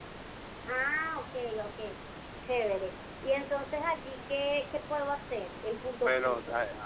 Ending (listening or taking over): taking over